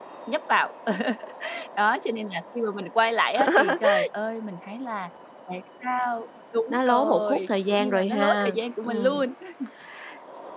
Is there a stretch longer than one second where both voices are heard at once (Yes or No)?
Yes